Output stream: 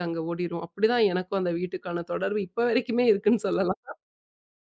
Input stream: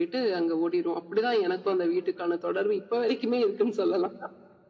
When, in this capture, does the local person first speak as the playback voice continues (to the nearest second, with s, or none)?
none